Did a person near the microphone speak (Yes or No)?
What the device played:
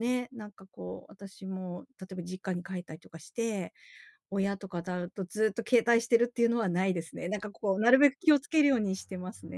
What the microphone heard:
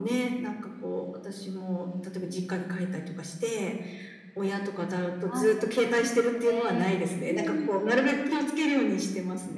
Yes